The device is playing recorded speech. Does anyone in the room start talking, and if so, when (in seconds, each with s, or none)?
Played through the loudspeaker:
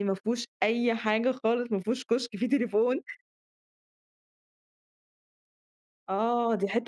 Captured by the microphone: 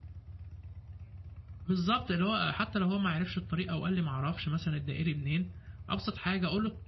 1.6 s